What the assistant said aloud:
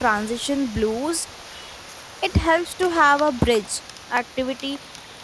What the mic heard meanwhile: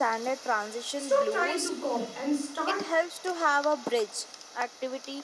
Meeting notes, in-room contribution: present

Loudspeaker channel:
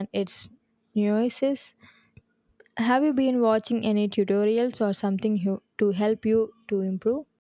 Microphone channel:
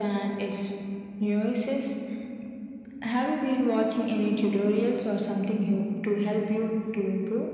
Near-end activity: none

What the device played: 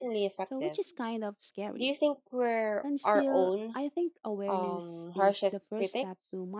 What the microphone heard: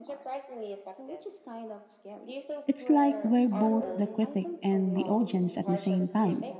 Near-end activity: present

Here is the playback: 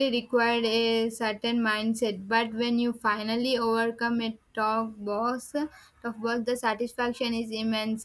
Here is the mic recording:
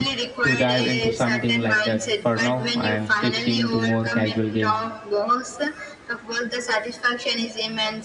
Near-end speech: present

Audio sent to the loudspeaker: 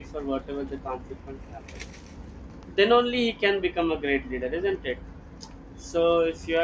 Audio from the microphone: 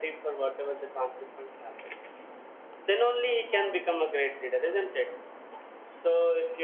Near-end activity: present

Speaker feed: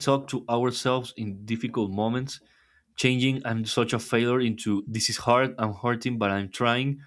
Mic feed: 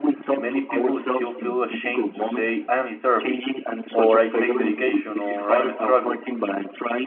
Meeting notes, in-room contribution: present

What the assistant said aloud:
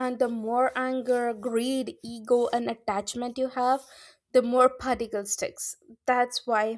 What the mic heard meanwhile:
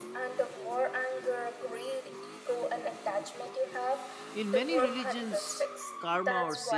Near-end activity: present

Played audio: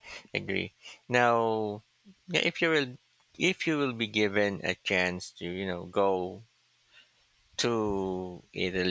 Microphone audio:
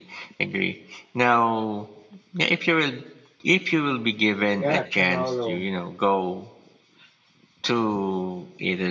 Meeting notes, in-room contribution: present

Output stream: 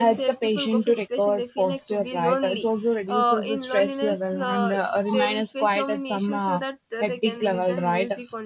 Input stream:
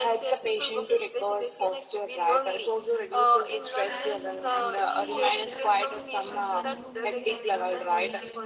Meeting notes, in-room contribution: present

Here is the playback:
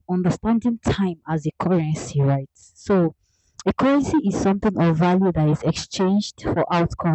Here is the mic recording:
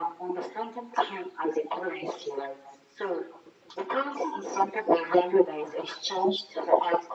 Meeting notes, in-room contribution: none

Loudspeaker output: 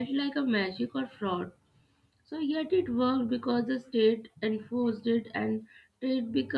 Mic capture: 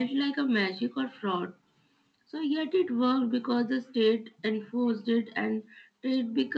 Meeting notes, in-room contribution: none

